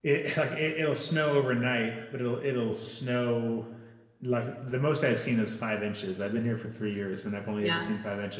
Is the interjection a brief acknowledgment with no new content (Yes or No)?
Yes